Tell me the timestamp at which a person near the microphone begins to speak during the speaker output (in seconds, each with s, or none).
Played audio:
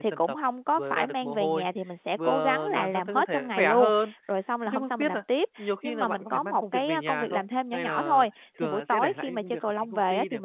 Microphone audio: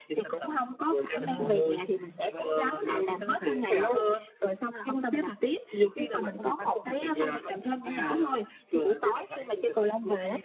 1.2 s